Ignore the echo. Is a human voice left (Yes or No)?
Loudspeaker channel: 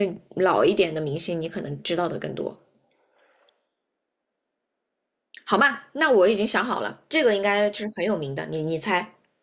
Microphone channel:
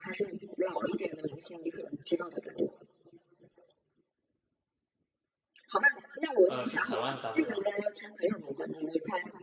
Yes